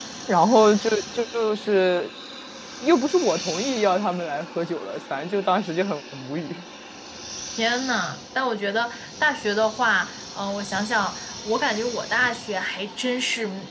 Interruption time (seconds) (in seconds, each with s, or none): none